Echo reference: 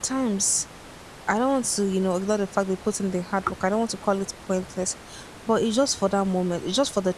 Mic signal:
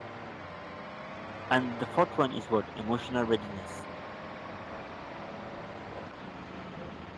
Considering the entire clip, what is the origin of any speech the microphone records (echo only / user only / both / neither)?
user only